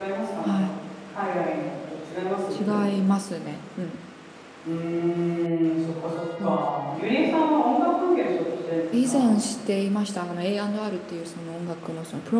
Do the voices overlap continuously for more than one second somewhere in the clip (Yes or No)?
No